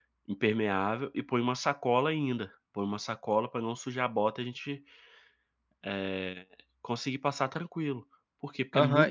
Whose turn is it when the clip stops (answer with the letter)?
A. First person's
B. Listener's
B